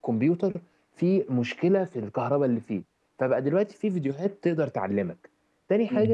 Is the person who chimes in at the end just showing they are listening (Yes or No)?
Yes